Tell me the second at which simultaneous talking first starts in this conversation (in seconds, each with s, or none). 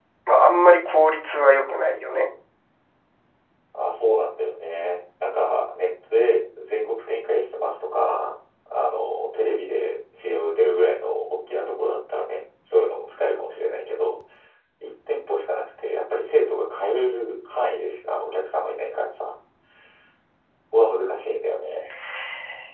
none